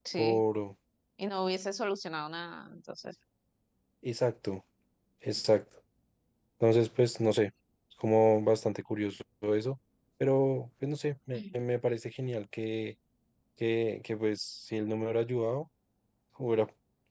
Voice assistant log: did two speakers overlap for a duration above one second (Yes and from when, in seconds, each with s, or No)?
No